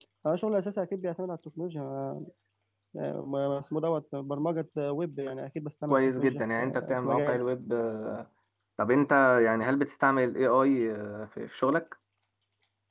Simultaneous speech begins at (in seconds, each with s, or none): 5.9 s